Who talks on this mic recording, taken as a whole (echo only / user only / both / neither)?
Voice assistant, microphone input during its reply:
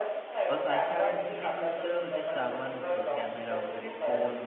both